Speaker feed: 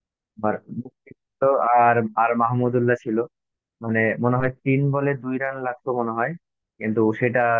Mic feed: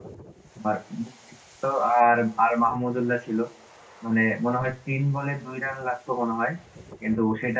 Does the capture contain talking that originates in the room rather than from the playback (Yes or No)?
No